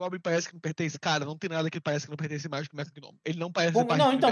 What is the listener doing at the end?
taking over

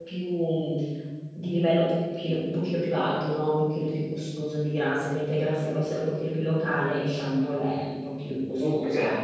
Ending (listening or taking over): taking over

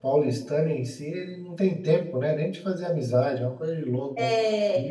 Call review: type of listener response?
taking over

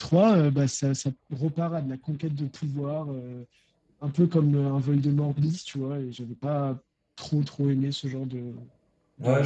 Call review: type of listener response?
taking over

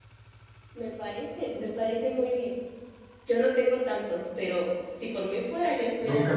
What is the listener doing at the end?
taking over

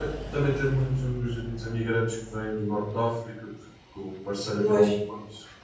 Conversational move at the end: listening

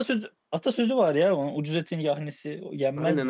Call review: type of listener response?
taking over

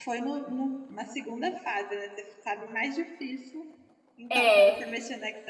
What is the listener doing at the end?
listening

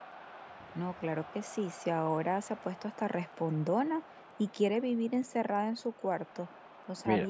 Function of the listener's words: listening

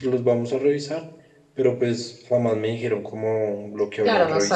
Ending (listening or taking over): taking over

